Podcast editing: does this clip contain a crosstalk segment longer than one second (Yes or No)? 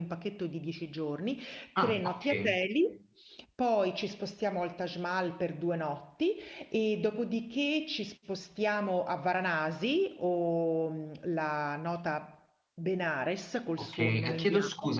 Yes